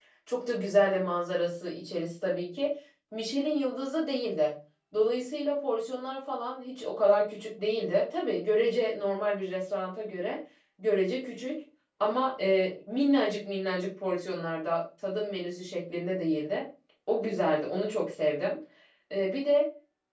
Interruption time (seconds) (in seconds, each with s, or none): none